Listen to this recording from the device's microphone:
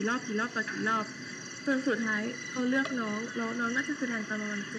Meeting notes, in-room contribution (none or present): none